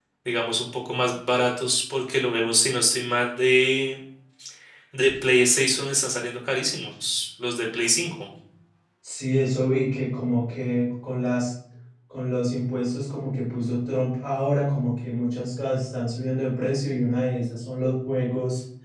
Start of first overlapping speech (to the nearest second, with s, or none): none